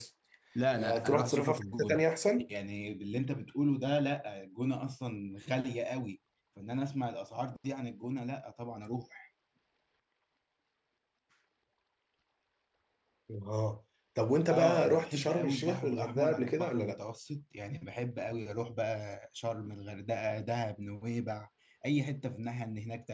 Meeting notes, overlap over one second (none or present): present